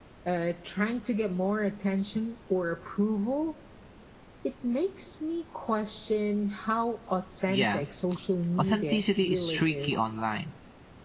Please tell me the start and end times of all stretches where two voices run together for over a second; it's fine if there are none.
8.6-9.9

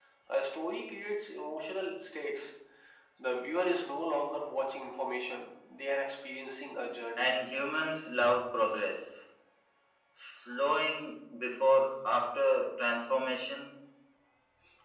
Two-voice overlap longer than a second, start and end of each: none

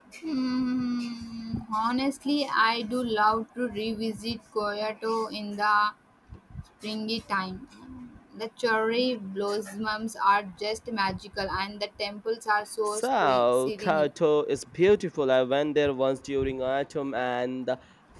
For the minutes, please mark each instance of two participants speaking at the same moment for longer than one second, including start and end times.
12.9-14.1

